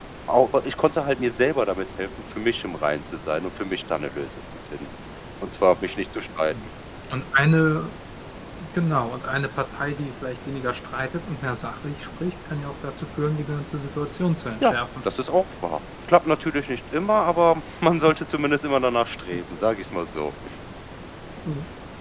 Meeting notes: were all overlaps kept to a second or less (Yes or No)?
Yes